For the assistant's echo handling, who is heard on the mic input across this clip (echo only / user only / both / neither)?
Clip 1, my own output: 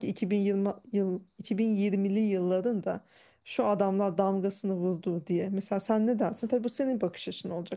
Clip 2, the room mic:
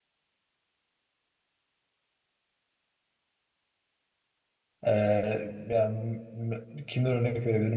user only